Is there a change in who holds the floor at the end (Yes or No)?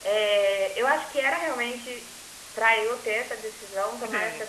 No